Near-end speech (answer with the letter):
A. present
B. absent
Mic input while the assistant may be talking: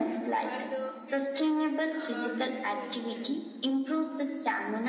A